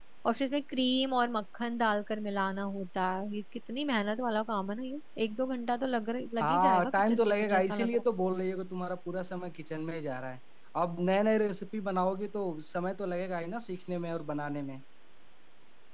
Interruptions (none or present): present